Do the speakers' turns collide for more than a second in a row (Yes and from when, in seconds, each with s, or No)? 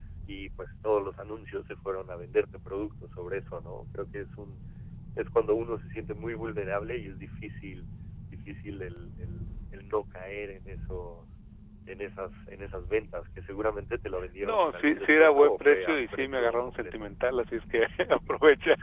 Yes, from 14.4 s